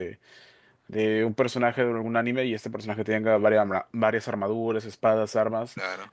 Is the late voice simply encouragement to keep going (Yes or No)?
Yes